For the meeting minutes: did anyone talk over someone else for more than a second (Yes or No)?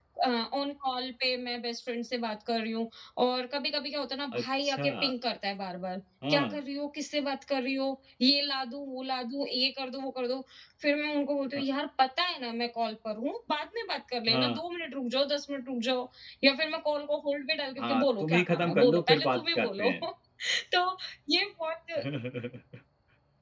Yes